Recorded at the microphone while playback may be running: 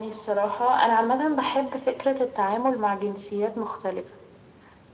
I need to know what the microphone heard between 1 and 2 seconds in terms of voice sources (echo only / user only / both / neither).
echo only